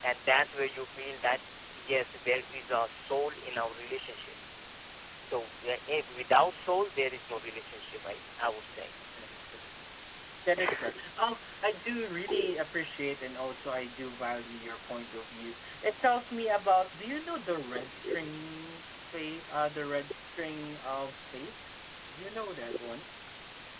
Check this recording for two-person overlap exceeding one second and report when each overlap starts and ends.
none

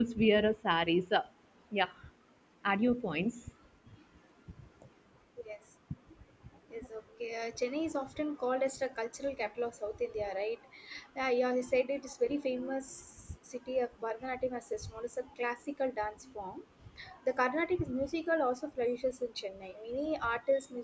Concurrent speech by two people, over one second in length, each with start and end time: none

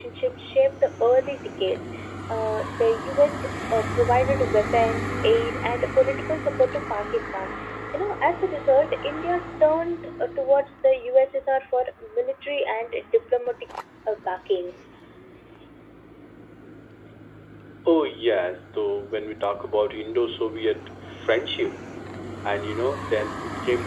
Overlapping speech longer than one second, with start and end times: none

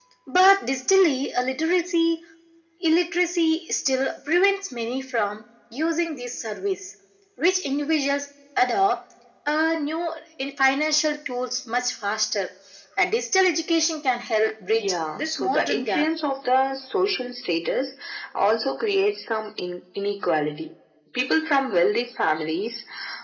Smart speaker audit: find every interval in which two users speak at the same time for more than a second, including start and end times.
14.7-16.1

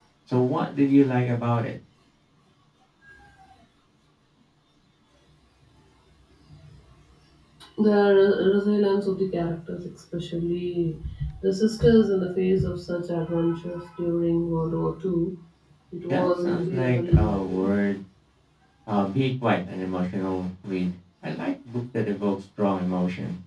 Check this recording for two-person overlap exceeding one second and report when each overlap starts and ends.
16.1-17.7

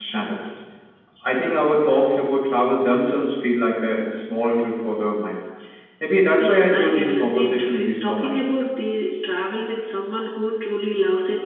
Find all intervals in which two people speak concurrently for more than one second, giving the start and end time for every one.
6.4-8.4

